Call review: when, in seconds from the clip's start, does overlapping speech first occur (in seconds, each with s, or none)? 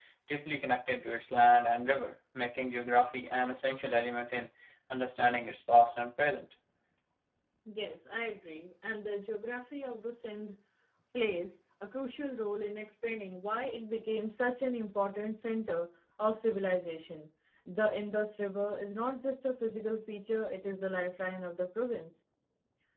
none